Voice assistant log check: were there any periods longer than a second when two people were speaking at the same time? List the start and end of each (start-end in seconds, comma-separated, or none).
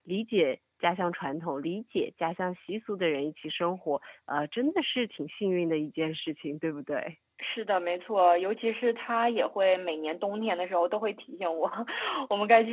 none